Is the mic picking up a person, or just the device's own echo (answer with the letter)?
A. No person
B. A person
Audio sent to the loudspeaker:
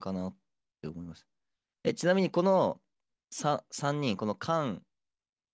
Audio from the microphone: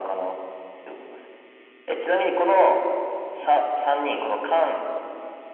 A